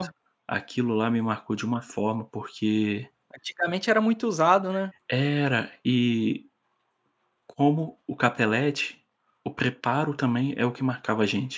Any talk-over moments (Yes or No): No